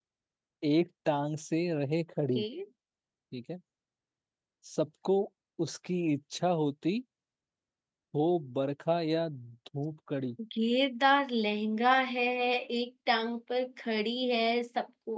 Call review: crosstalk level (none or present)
none